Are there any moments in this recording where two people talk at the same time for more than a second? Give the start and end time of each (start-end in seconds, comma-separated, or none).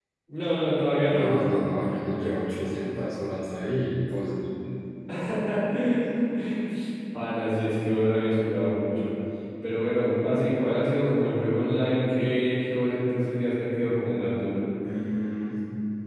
none